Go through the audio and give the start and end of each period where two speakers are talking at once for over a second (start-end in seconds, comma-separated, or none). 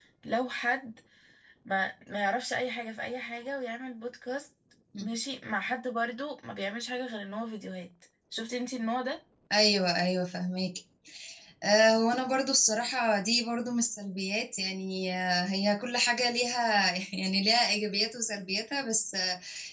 none